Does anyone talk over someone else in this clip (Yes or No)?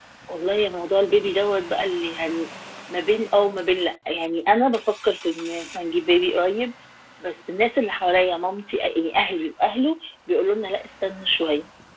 No